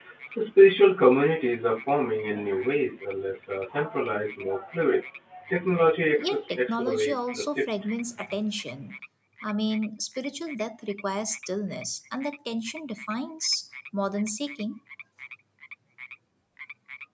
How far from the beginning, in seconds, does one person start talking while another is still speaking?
6.2 s

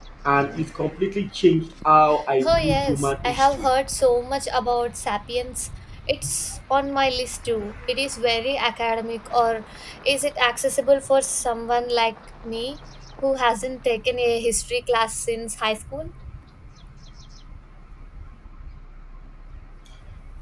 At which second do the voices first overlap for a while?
2.5 s

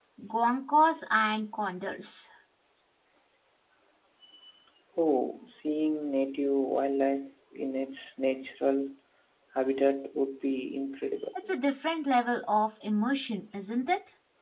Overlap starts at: none

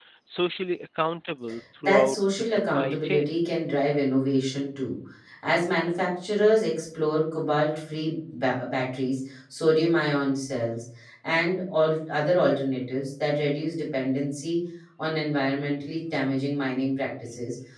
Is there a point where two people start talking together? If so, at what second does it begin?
1.8 s

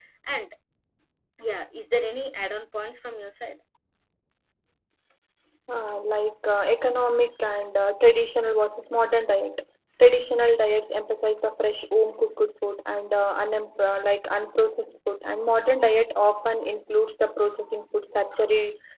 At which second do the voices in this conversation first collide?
none

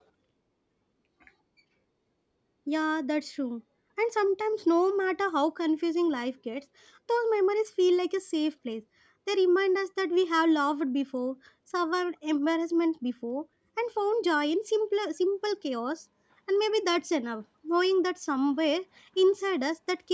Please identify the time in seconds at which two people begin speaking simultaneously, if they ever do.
none

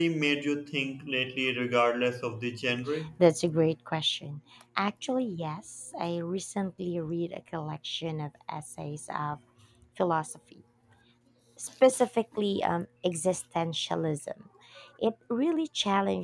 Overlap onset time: none

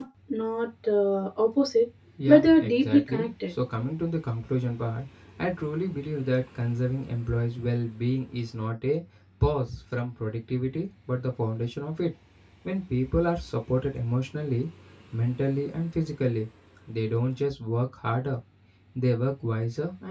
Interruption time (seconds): 2.2 s

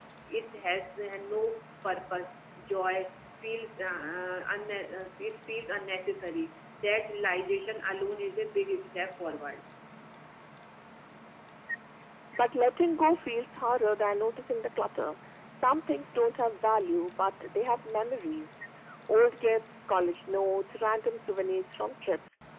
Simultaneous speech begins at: none

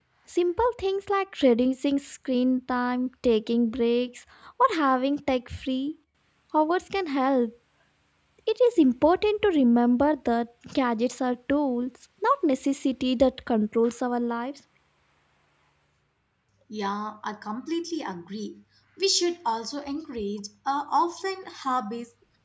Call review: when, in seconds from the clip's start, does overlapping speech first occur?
none

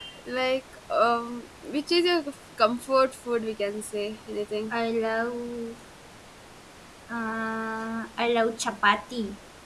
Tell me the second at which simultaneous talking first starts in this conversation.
none

